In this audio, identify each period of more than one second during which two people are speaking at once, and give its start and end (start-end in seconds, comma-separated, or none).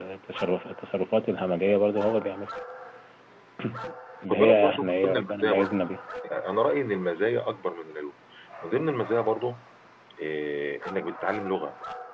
4.3-5.7